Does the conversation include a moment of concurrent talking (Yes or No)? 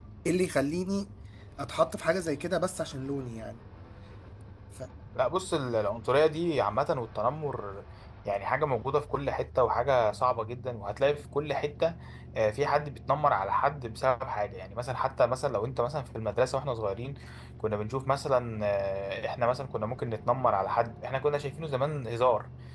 No